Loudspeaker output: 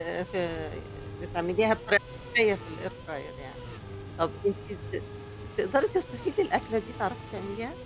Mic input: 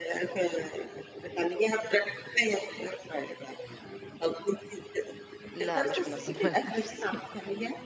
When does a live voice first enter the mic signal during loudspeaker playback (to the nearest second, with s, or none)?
6 s